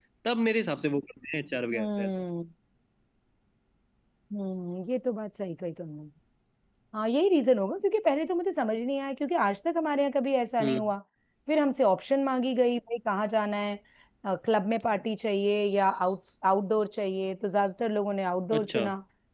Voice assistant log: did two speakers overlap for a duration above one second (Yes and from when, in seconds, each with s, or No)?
No